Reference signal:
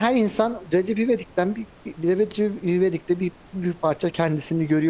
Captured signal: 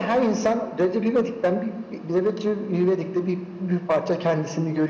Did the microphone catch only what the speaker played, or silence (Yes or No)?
Yes